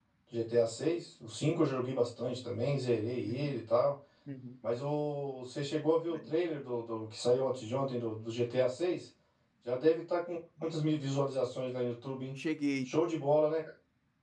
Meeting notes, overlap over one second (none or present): none